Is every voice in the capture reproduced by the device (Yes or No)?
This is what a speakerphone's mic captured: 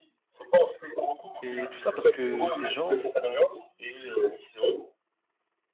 No